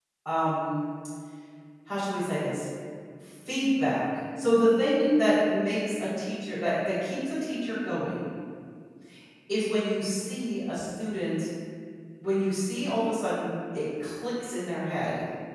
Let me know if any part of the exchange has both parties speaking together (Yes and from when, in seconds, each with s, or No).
No